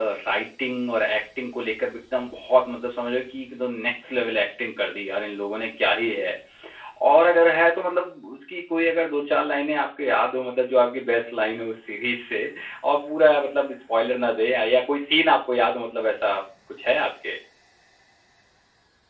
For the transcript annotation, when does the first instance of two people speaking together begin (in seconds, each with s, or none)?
none